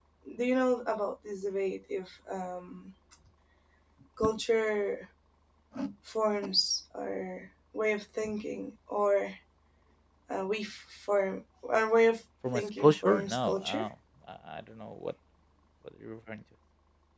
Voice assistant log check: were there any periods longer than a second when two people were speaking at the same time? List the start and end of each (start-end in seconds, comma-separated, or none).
12.5-13.9